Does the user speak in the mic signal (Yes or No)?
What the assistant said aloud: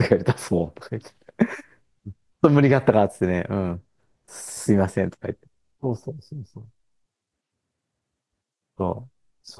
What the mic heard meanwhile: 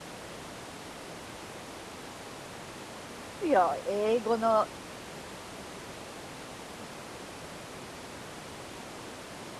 Yes